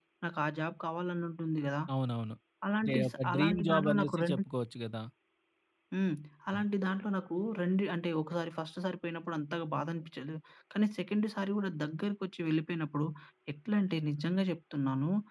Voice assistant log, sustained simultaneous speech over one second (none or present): present